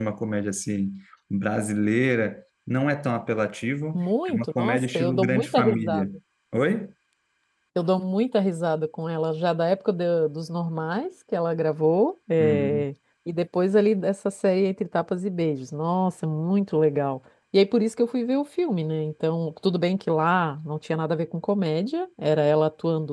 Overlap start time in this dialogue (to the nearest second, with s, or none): 4 s